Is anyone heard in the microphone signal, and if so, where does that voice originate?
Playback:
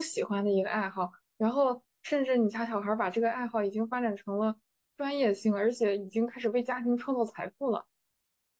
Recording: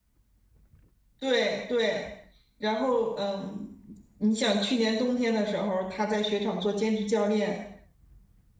user only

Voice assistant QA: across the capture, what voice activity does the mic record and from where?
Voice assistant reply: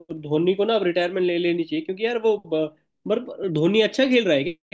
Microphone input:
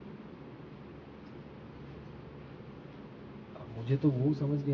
user only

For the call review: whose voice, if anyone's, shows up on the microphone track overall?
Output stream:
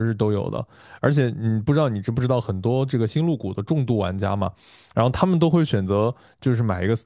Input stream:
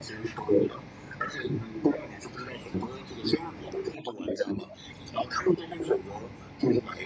echo only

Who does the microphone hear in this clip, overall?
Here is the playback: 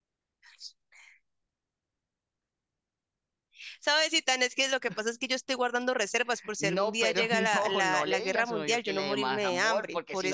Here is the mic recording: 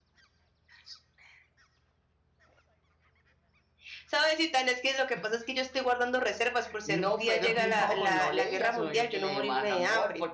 echo only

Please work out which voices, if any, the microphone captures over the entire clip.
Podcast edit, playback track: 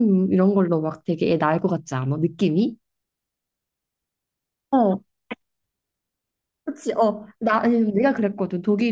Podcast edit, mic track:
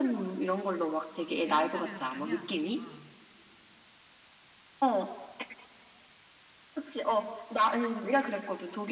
both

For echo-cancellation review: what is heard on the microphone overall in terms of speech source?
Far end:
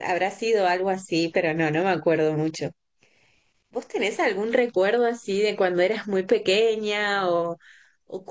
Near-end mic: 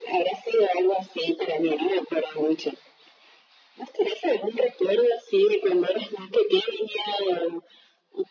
echo only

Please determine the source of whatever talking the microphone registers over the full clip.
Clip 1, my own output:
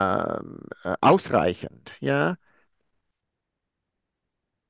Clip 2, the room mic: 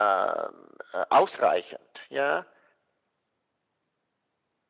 echo only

